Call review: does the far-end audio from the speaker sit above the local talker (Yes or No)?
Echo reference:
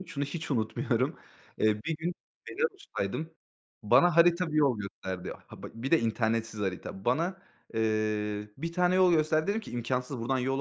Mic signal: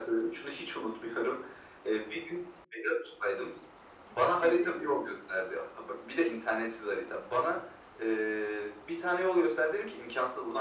Yes